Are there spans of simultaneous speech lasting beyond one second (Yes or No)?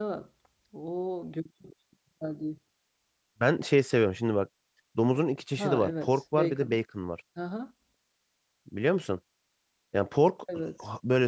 Yes